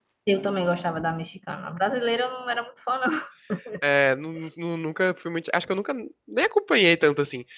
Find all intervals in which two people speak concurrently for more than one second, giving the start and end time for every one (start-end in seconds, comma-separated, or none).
none